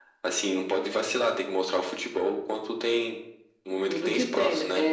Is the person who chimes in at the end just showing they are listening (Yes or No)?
No